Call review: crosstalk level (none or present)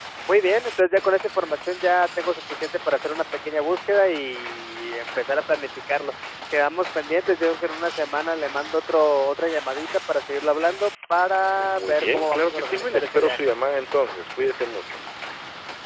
present